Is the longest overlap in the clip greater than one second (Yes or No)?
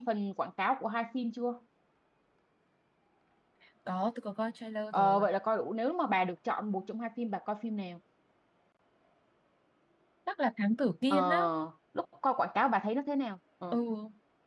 No